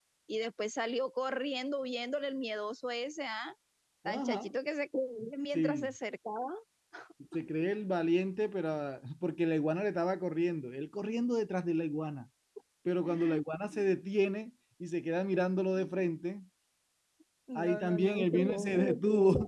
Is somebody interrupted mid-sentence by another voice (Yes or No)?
Yes